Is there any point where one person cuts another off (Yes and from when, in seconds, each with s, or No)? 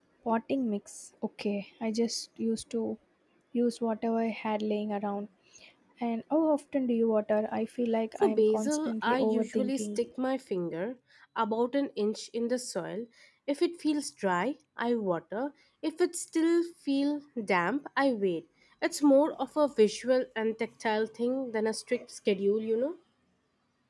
Yes, from 8.2 s